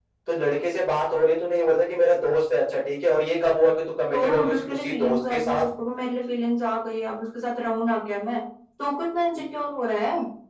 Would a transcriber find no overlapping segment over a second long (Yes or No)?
No